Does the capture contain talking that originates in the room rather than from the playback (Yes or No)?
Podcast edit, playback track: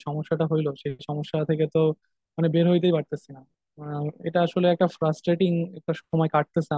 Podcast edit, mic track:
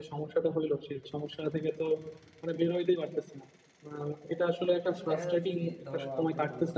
Yes